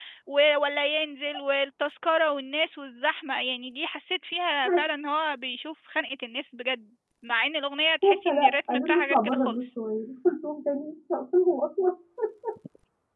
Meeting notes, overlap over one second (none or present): present